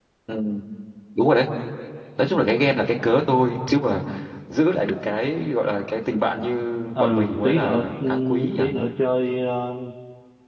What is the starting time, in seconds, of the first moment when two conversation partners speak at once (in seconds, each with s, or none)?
7.0 s